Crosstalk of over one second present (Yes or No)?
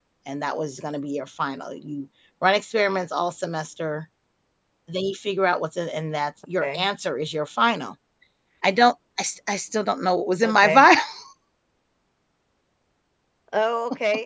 No